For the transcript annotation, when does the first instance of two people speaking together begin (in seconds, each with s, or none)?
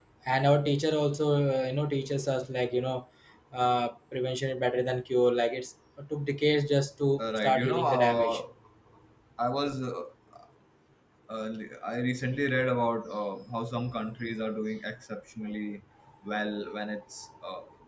7.2 s